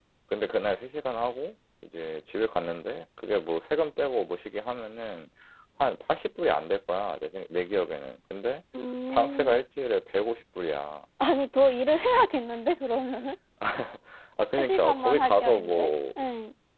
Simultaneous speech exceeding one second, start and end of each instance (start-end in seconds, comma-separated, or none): 14.6-15.9